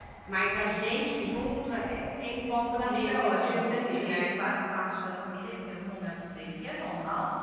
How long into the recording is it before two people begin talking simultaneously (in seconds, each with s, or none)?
2.8 s